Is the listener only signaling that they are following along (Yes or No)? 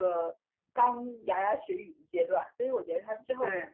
Yes